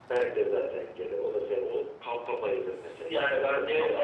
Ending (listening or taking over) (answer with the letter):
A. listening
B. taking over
B